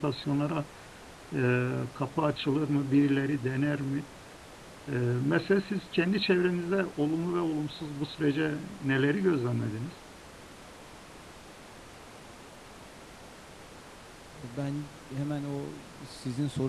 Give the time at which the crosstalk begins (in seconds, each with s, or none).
none